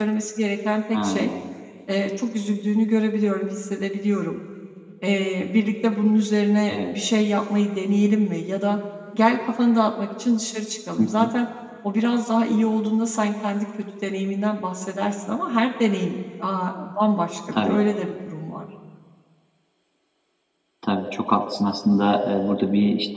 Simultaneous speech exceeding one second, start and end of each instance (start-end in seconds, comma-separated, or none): none